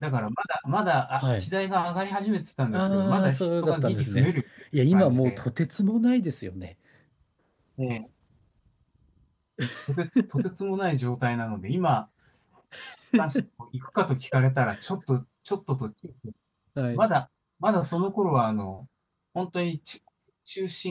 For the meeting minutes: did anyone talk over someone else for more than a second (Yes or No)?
Yes